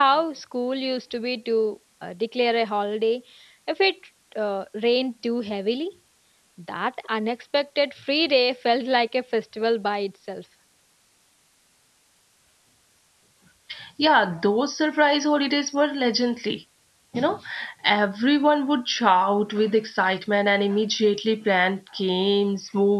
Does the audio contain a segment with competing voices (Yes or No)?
No